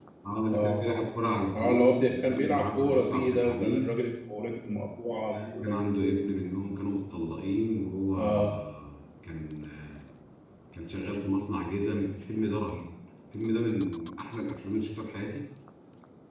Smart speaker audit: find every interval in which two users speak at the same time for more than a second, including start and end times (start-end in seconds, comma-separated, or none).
1.6-4.0